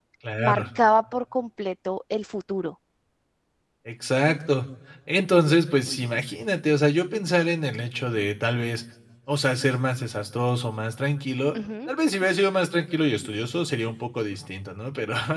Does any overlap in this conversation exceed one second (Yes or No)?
No